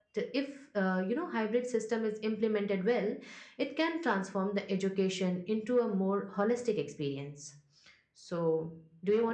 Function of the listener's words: taking over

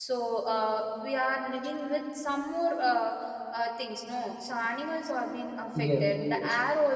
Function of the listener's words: listening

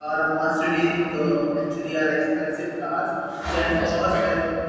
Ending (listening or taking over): listening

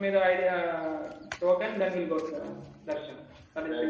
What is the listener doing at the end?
taking over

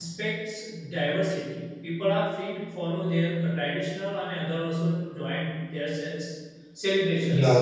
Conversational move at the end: taking over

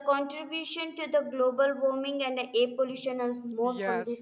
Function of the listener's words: taking over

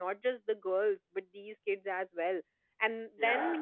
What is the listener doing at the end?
listening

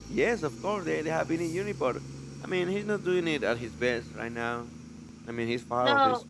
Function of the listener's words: taking over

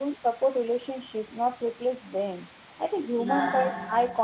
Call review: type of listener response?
listening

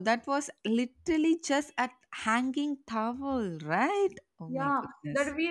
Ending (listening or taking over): taking over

